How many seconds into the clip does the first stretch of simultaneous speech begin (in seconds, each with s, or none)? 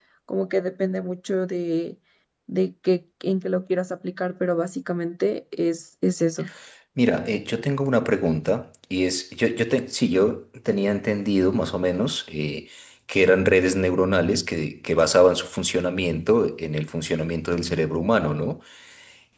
none